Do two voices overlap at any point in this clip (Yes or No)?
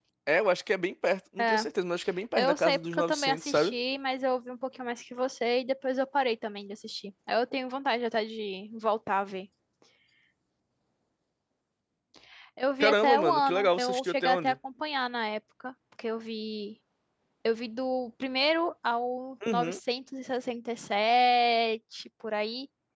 Yes